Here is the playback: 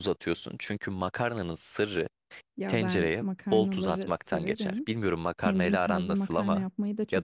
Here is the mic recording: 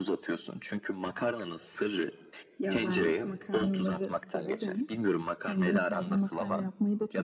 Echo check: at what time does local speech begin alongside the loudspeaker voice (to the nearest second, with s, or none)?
none